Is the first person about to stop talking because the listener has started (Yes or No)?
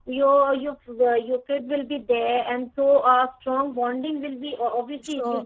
Yes